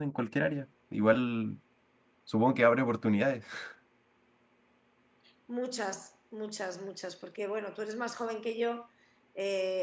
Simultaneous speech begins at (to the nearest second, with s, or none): none